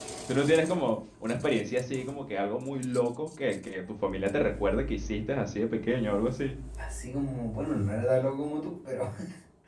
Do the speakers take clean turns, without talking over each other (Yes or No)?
Yes